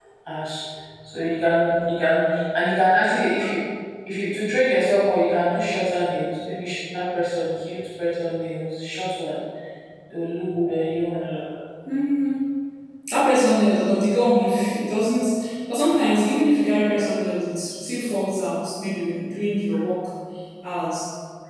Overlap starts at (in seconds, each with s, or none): none